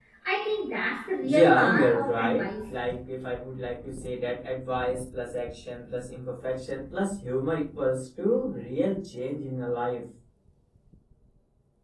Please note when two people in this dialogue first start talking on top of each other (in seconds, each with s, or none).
1.2 s